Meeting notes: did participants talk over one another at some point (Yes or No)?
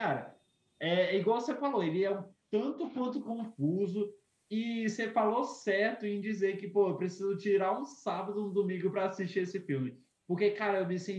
No